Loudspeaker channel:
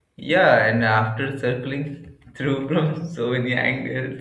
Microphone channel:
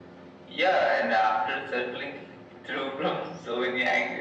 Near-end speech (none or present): none